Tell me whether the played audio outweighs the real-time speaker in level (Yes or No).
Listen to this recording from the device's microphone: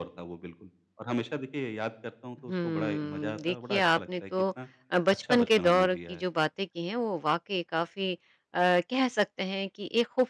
No